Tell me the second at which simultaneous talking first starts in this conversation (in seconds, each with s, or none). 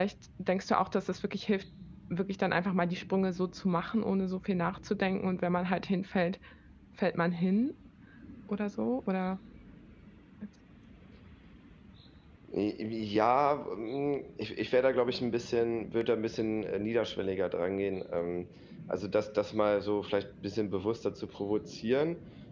none